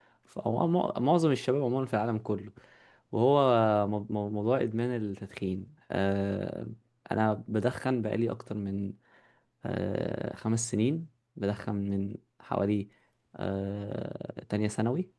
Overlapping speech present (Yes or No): No